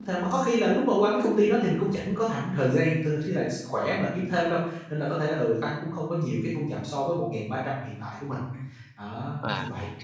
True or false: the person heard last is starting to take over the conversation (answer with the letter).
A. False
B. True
B